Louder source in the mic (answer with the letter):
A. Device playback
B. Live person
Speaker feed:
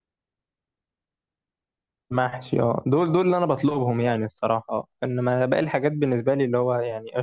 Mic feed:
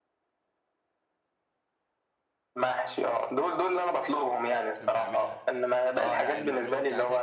A